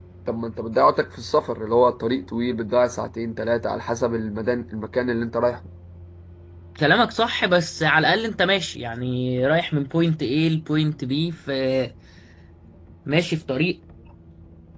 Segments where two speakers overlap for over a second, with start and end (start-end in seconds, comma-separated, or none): none